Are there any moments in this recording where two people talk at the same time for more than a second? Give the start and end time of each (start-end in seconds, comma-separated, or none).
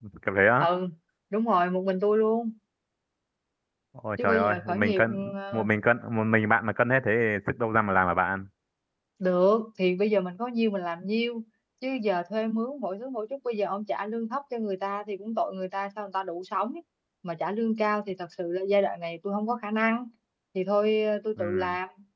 4.2-5.7